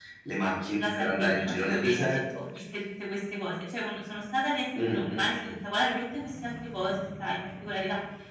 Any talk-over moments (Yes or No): Yes